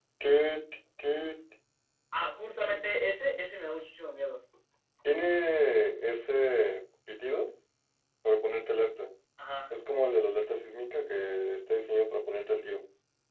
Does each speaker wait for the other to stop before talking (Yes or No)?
Yes